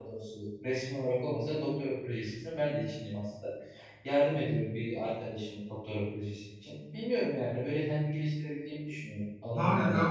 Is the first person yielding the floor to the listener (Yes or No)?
Yes